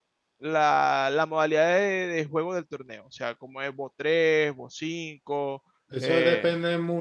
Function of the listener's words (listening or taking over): taking over